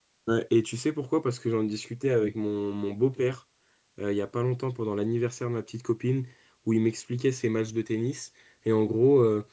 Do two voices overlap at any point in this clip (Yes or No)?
No